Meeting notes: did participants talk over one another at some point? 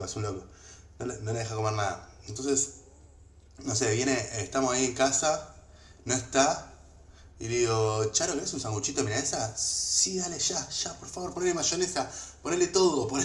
No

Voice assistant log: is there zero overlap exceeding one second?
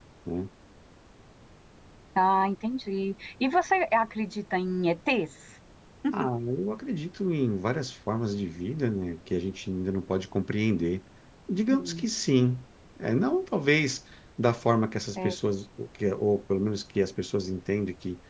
Yes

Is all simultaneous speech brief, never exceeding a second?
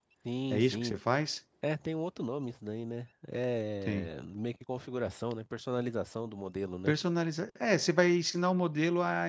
Yes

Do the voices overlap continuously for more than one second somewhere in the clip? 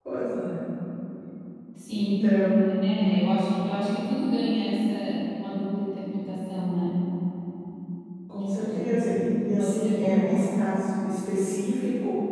Yes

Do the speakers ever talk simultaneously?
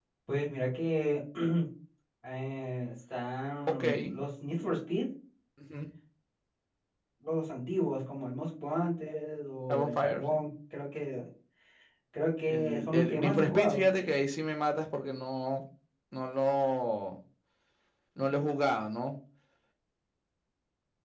Yes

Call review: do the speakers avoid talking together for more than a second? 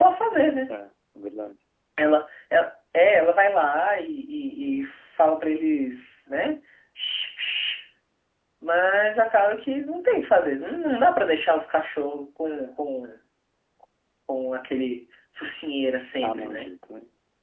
Yes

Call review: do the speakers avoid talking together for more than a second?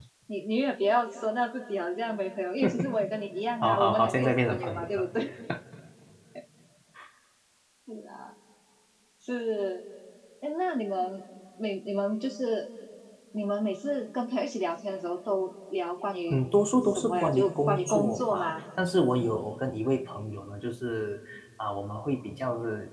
No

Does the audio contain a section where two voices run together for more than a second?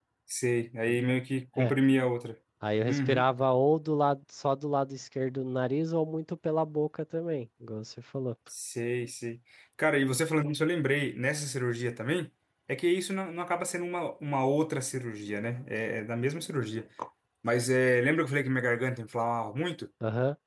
No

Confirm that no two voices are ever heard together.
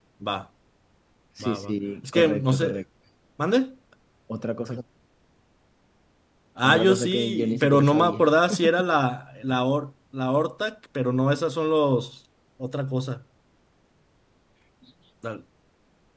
No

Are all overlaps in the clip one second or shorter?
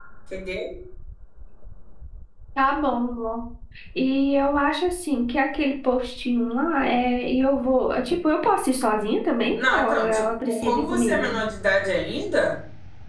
No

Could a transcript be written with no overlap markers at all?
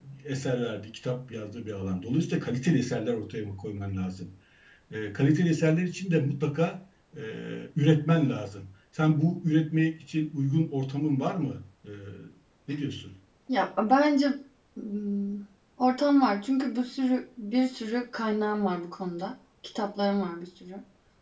Yes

